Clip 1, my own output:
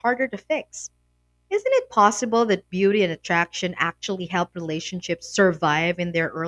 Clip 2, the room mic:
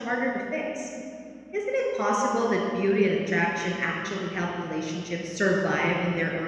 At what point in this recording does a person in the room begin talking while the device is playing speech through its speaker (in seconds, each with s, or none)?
none